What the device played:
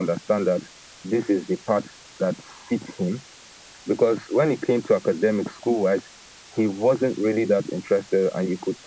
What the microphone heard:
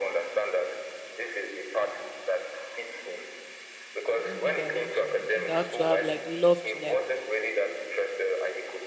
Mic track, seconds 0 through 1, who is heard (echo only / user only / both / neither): echo only